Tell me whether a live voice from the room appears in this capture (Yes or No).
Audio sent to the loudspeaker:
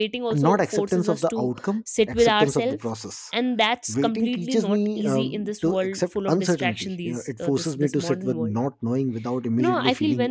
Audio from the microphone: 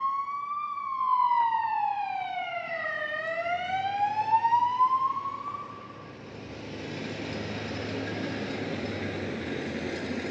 No